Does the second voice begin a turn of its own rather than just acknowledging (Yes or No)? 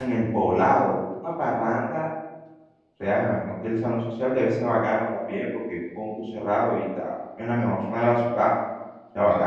Yes